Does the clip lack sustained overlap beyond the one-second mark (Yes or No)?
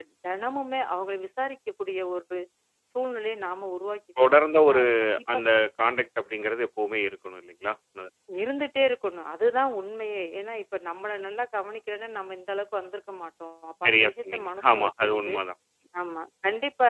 No